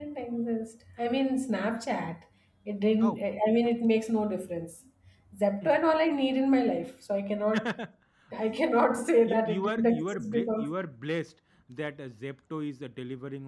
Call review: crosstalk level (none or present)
present